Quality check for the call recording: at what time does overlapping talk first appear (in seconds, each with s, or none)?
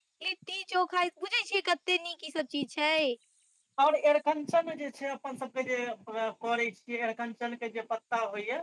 none